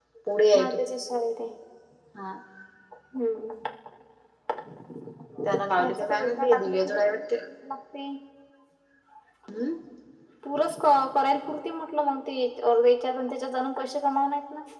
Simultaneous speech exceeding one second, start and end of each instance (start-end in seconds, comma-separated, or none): 5.5-7.2